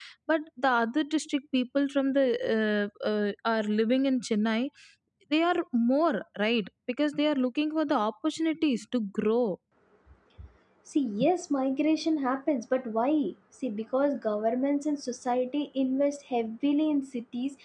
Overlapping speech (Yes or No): No